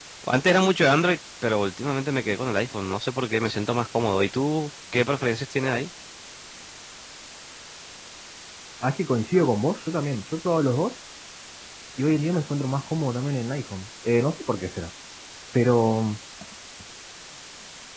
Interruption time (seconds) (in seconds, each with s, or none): none